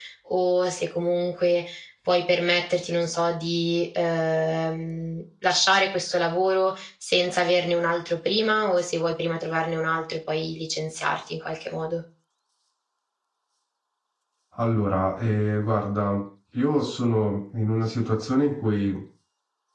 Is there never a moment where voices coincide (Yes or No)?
Yes